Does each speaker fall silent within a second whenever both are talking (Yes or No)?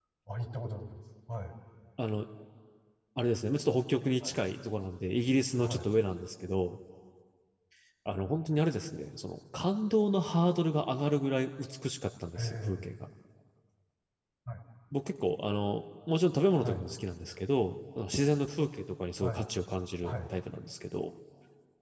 Yes